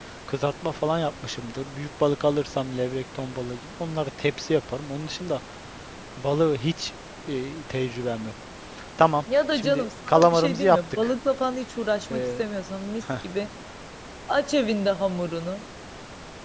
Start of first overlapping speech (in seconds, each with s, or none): 9.5 s